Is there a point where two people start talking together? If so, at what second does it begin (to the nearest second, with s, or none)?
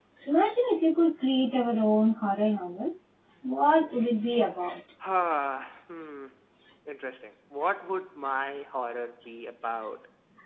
none